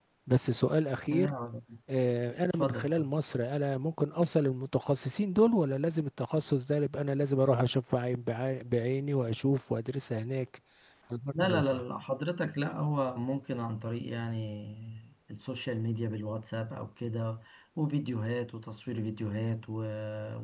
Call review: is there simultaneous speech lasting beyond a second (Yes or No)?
No